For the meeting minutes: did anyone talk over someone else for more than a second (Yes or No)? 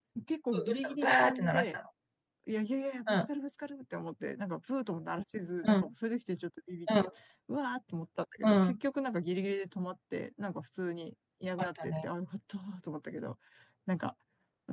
Yes